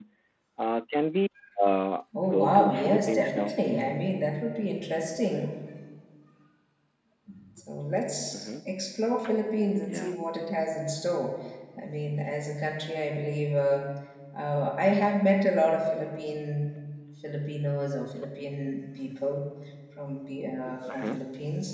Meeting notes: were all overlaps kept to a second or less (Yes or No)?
No